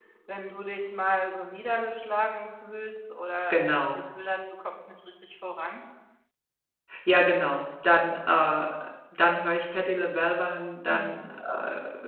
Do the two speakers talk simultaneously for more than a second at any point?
No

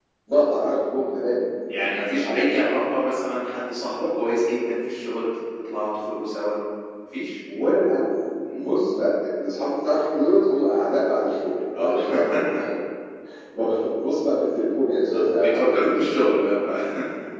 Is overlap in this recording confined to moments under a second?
No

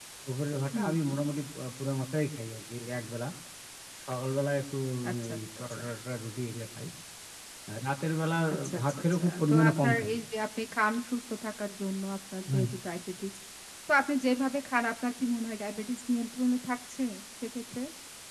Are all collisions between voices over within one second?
No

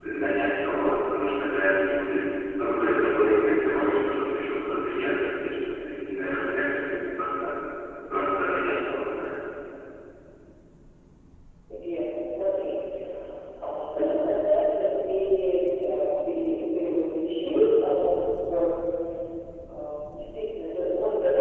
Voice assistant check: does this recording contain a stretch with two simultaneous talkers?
No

